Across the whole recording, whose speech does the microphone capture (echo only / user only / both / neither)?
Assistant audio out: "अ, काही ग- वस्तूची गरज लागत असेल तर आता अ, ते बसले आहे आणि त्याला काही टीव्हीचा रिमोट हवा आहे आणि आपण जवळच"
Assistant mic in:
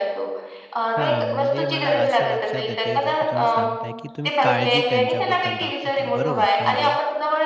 both